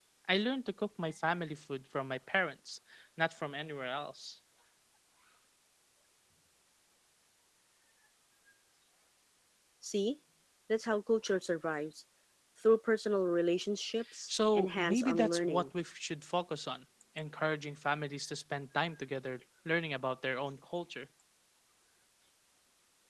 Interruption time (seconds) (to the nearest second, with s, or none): 14 s